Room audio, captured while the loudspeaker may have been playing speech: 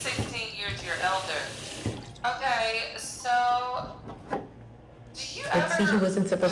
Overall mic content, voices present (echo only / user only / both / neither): both